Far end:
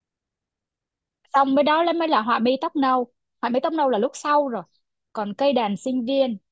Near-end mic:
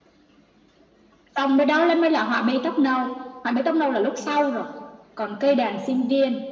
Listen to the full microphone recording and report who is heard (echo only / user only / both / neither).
echo only